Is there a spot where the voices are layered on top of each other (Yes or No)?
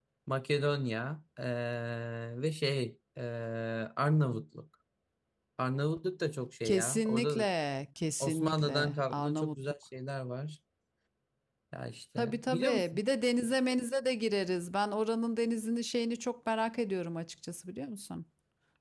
Yes